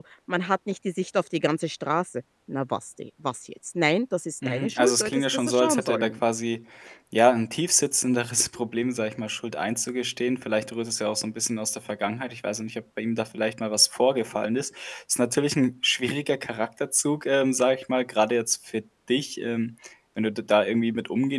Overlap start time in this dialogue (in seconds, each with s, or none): 4.4 s